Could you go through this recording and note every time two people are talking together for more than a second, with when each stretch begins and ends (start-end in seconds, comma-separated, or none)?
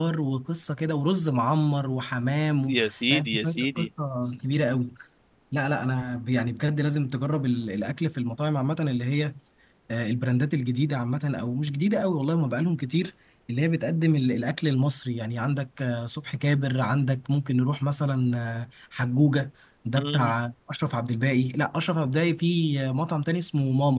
2.7-3.9